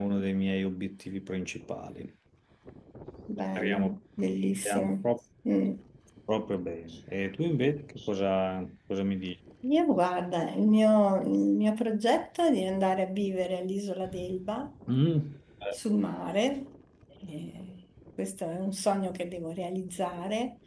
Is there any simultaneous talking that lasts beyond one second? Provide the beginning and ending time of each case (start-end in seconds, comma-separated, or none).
none